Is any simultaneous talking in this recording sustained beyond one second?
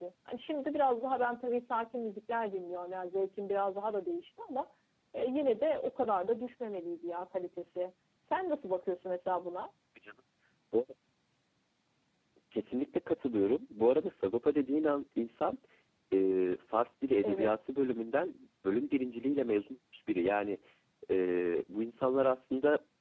No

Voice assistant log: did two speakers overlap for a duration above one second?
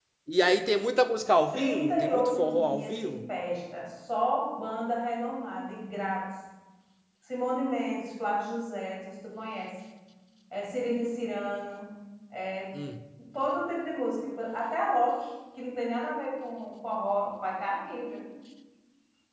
Yes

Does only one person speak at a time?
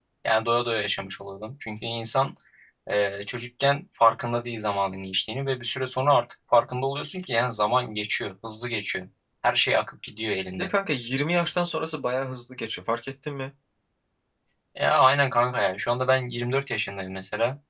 Yes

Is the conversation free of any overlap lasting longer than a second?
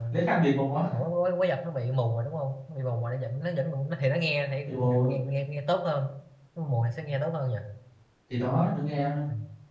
Yes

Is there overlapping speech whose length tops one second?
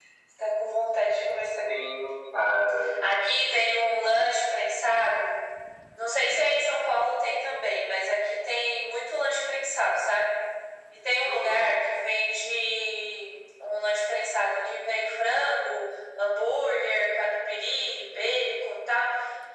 No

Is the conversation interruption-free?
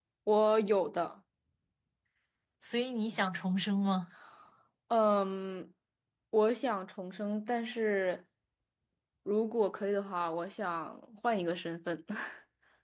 Yes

